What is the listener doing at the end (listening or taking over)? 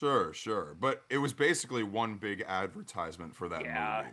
taking over